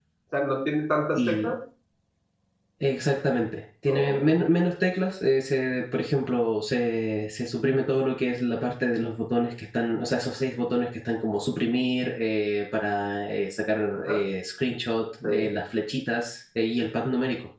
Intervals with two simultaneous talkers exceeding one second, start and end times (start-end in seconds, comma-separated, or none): none